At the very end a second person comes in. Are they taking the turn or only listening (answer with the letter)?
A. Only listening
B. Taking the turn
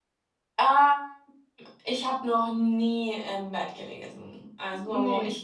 A